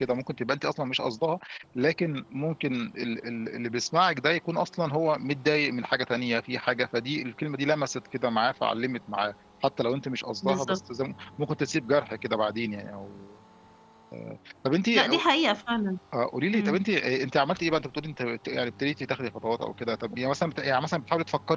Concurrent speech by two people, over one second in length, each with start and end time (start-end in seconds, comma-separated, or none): none